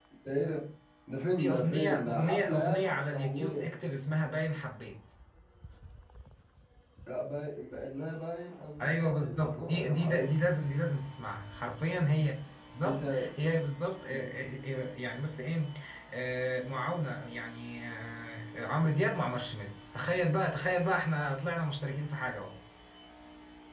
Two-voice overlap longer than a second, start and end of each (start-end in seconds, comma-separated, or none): 1.4-3.7, 8.8-10.3